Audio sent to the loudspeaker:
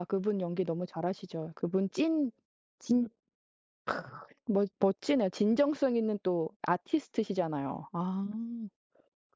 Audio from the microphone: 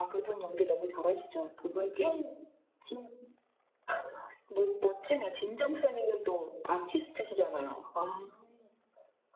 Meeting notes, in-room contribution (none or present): none